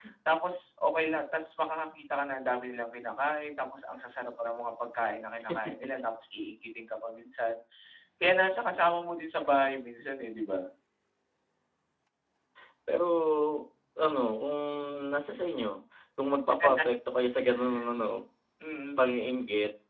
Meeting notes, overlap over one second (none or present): none